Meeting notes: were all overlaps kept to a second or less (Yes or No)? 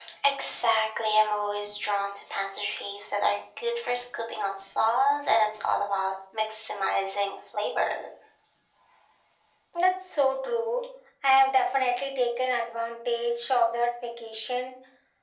Yes